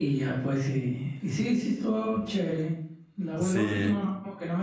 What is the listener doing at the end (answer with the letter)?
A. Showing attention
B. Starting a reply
A